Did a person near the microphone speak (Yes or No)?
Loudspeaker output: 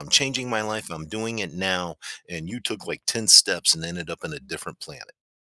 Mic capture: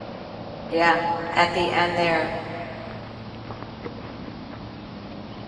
Yes